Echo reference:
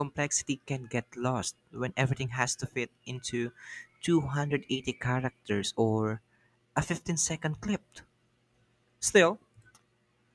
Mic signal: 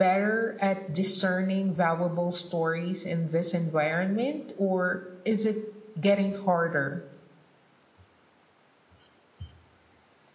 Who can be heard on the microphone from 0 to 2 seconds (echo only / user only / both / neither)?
user only